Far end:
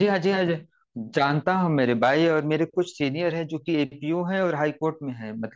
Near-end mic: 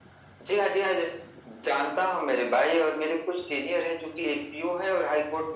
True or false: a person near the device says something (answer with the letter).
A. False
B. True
A